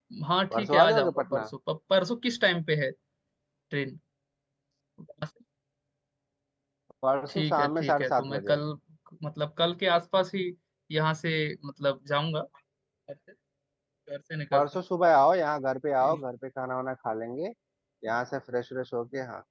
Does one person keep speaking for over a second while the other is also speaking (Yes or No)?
Yes